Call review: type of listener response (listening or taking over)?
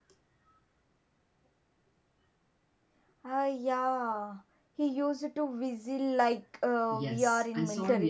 taking over